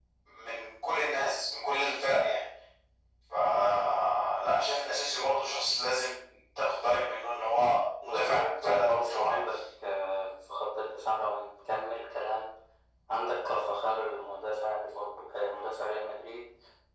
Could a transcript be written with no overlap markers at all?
No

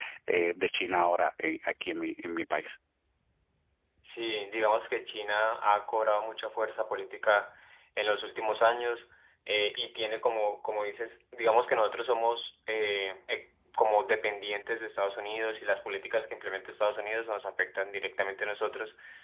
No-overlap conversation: Yes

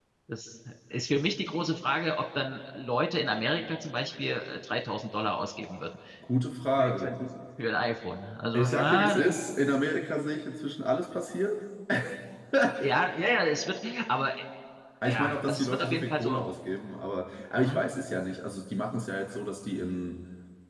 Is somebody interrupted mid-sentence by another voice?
Yes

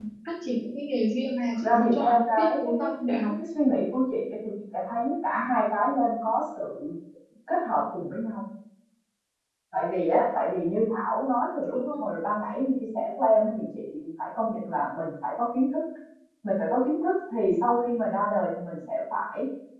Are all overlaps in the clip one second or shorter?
No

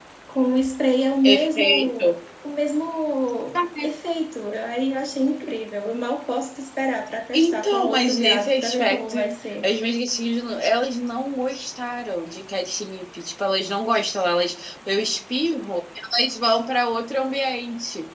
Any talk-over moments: Yes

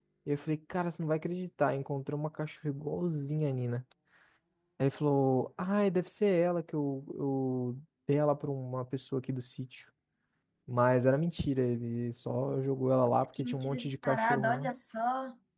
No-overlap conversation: No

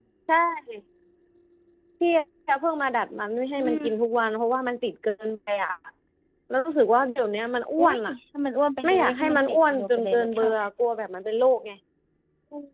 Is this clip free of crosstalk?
No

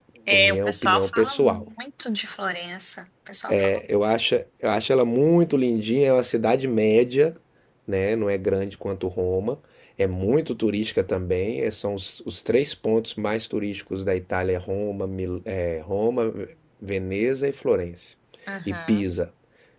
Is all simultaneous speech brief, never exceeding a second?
No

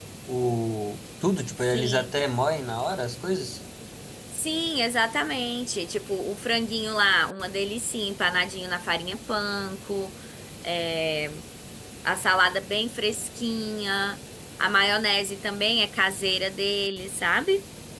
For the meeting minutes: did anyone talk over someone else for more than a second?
No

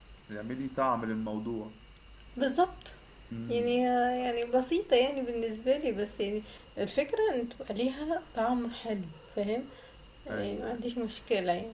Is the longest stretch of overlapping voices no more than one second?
Yes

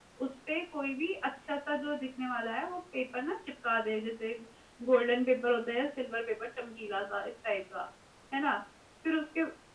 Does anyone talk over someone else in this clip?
No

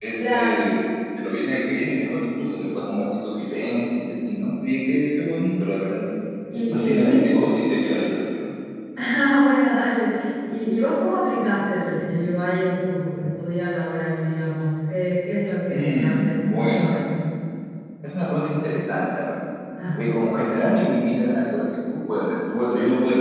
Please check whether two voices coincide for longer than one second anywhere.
Yes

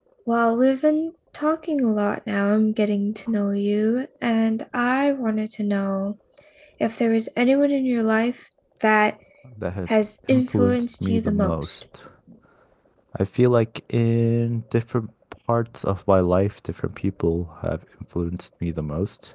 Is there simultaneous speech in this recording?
Yes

